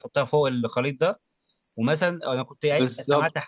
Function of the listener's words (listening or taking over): listening